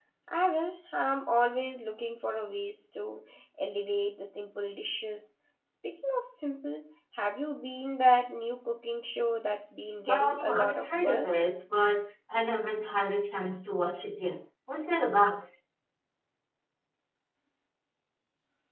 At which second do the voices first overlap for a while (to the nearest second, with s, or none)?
10 s